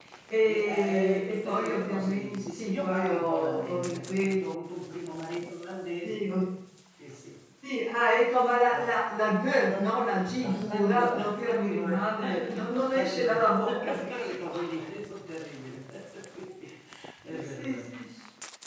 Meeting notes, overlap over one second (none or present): present